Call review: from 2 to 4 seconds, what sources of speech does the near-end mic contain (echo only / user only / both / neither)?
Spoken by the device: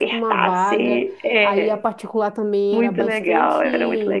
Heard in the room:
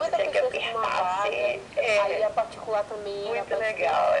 echo only